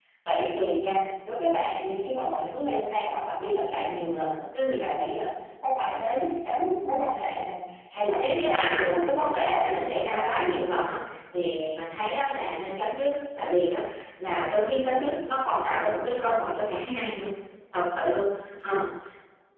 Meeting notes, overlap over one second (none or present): present